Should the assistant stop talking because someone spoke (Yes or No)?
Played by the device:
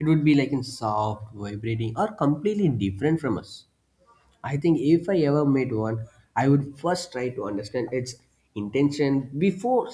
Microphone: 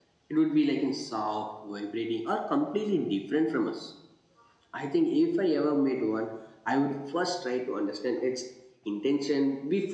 No